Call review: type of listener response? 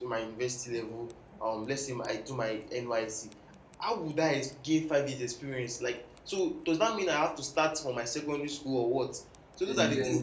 listening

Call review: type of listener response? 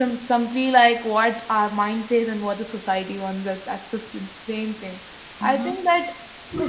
listening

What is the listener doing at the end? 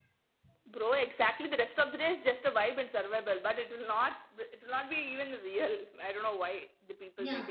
taking over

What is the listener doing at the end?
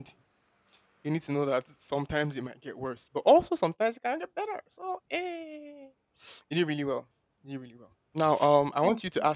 listening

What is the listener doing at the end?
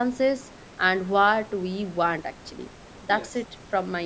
listening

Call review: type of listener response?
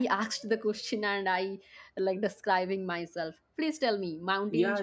taking over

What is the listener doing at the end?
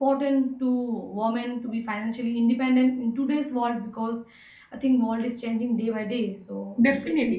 taking over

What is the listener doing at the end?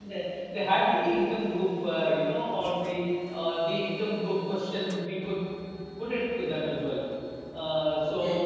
taking over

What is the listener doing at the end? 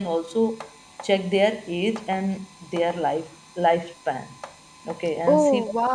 listening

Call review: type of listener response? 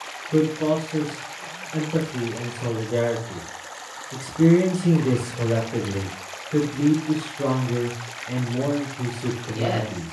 taking over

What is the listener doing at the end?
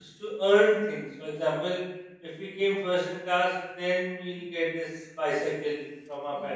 listening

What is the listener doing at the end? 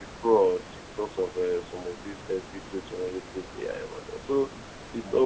listening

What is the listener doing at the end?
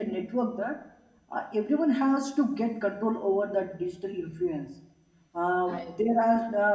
listening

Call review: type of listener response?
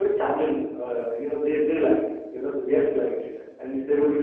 listening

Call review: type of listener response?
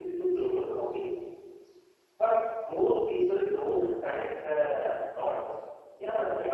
listening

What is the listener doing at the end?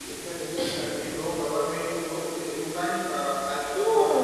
taking over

